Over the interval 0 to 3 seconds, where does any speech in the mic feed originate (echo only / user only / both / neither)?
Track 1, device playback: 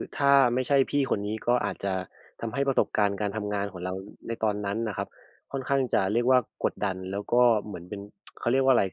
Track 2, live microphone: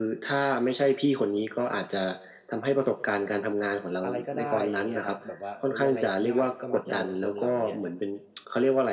echo only